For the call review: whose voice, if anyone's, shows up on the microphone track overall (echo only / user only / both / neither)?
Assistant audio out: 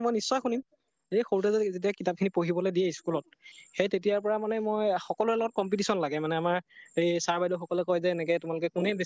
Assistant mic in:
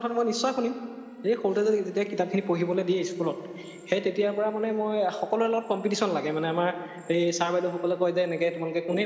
echo only